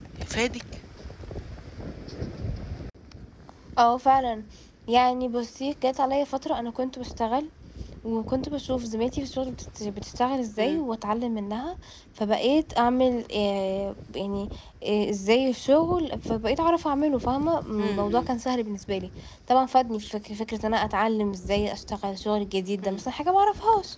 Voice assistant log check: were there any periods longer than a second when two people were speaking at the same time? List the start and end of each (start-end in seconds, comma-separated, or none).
none